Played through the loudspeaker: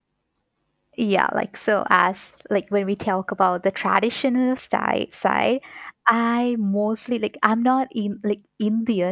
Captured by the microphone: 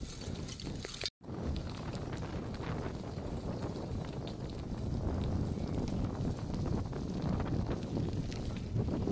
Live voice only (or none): none